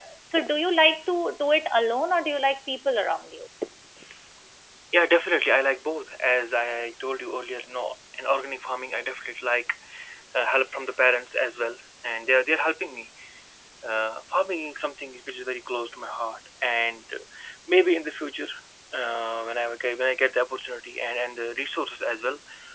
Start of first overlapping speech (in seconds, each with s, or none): none